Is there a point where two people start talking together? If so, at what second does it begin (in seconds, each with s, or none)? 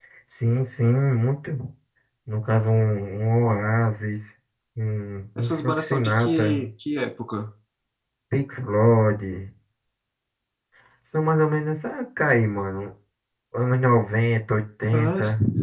5.4 s